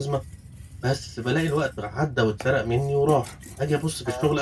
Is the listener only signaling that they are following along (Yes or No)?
Yes